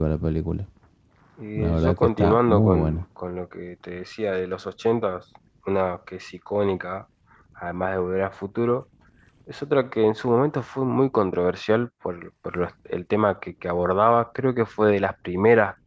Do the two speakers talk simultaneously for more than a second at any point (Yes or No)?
Yes